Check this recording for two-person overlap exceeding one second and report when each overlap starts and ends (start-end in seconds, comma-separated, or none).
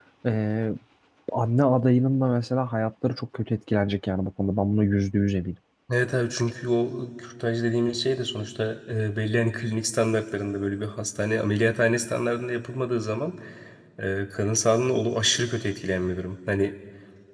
none